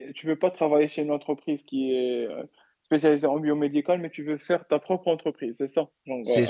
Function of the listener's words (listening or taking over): taking over